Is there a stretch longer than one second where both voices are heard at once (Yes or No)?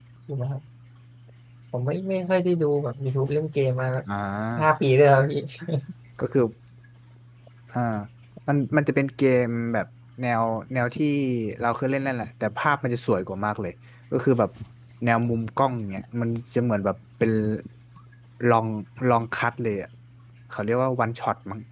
No